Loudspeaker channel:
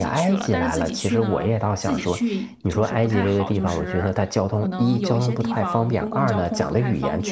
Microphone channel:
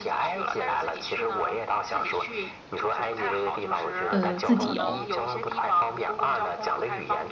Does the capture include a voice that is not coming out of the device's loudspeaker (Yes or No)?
Yes